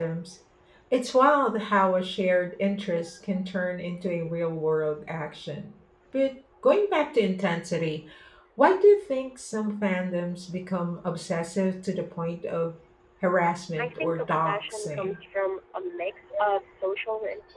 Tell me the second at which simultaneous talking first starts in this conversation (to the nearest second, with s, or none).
14 s